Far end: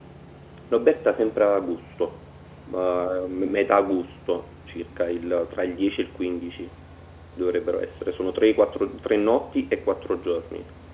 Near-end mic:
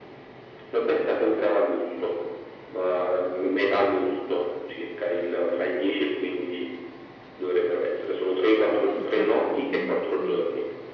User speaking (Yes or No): Yes